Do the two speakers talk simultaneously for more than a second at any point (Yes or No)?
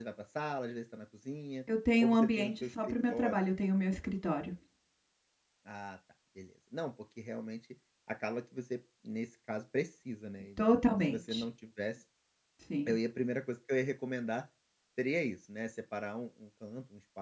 Yes